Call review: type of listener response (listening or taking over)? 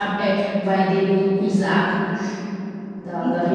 listening